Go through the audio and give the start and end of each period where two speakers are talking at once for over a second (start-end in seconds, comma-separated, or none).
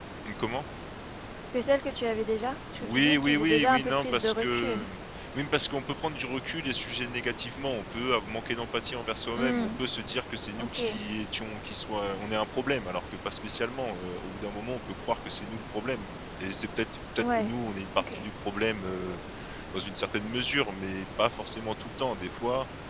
2.8-4.8